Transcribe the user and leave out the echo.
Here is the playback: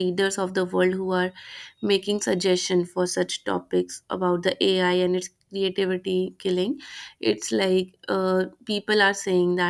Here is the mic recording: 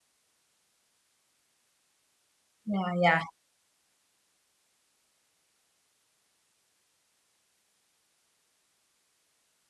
yeah yeah

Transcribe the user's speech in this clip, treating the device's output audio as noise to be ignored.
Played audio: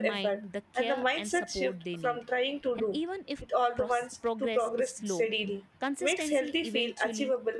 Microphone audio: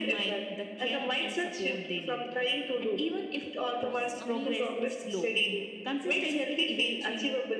it's amazing

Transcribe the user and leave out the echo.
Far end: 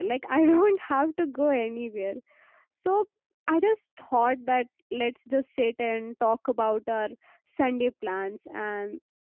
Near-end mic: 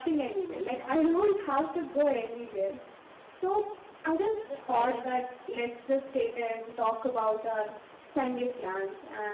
to the silence

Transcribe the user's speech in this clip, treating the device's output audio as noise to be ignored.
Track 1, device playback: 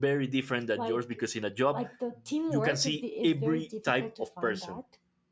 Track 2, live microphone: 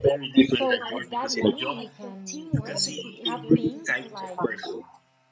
so with that money you can um, have things like

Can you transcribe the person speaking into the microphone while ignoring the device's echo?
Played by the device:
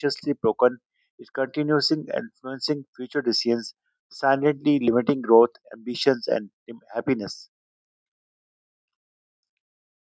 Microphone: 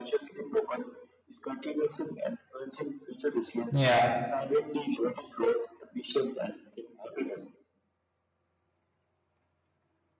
Yeah.

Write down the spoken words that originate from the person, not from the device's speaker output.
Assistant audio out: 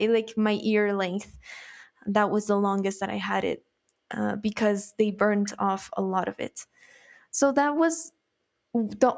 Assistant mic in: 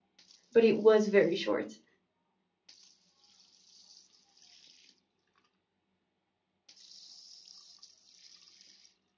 but it was very short.

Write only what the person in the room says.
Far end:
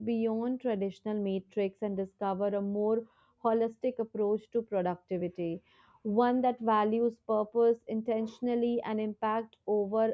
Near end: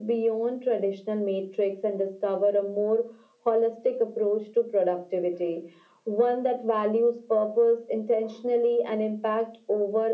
none

